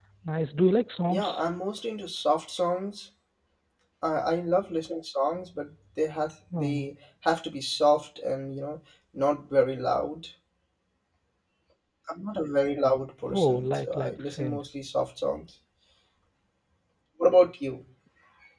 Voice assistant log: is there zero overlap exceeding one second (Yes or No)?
No